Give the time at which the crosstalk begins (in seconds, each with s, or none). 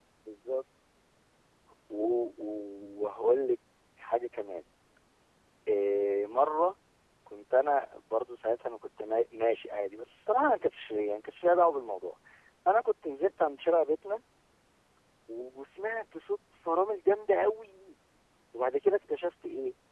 none